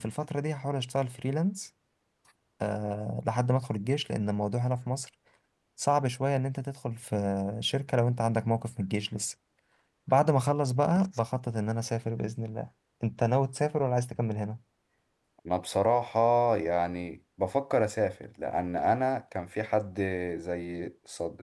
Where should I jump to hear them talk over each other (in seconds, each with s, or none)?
none